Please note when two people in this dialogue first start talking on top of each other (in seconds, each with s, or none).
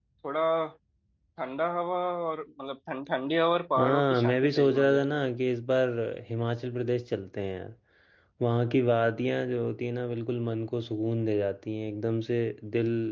3.8 s